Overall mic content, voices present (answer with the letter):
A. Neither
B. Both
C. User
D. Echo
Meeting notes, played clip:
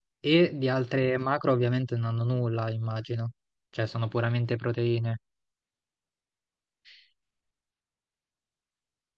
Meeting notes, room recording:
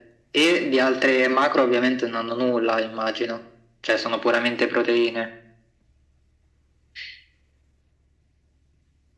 D